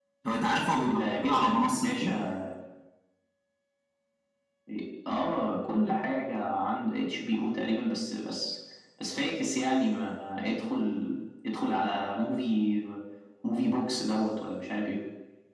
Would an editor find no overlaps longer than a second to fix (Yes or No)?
No